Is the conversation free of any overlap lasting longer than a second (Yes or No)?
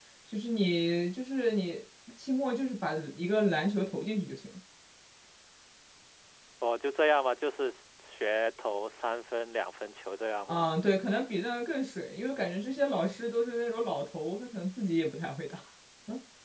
Yes